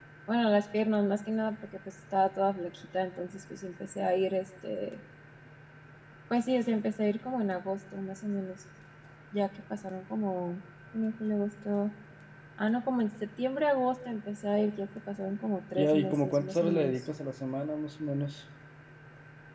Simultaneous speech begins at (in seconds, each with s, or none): 15.8 s